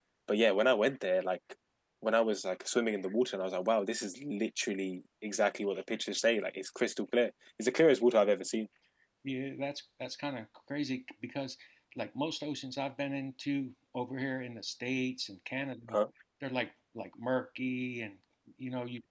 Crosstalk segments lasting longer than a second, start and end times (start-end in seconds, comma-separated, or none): none